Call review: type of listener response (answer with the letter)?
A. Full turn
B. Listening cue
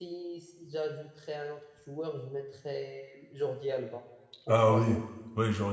A